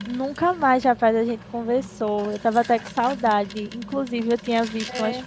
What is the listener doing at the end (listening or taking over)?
listening